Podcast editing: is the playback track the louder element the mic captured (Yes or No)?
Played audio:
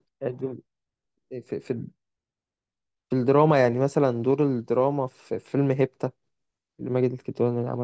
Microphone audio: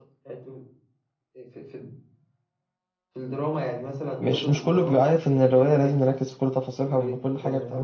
No